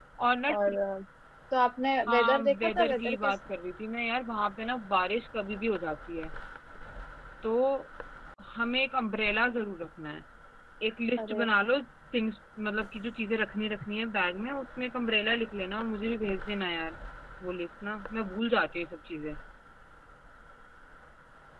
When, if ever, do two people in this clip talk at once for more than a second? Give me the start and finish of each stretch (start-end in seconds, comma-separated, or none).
2.1-3.3